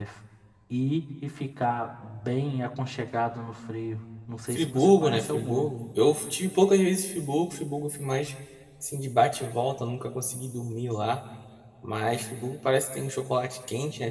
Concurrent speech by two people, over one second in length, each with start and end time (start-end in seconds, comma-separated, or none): 4.5-5.7